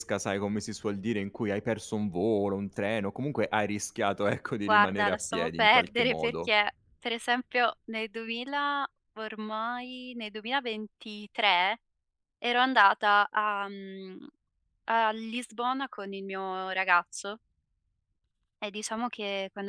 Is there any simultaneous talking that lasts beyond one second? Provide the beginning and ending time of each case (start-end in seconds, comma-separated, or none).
4.7-6.5